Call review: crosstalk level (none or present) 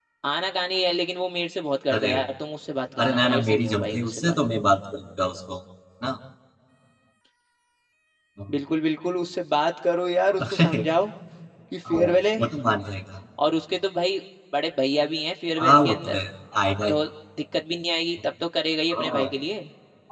present